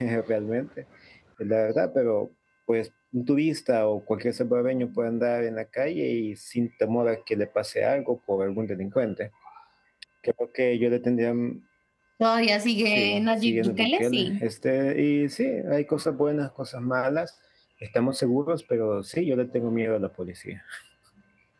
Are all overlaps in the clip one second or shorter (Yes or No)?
No